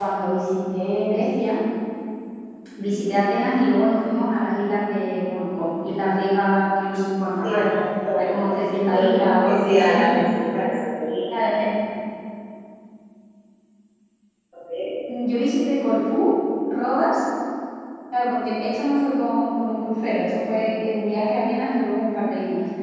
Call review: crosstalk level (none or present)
present